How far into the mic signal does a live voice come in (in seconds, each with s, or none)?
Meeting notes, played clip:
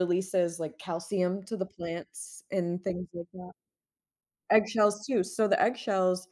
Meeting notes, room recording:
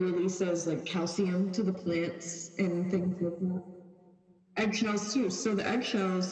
none